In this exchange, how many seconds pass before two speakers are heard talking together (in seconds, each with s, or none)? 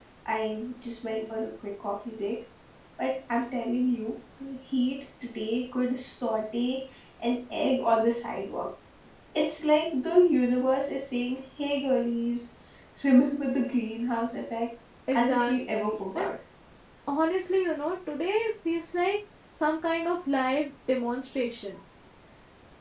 15.1 s